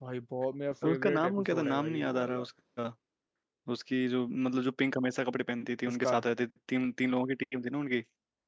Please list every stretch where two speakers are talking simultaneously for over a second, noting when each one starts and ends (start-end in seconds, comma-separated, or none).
0.8-2.5